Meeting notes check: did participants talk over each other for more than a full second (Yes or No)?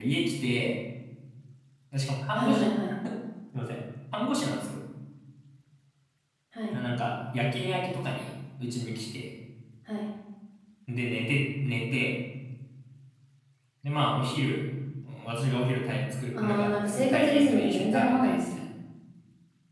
Yes